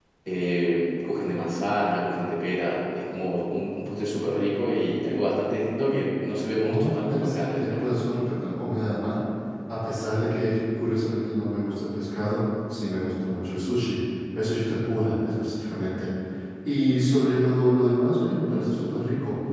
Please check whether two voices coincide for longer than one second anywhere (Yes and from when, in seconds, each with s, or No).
Yes, from 6.6 s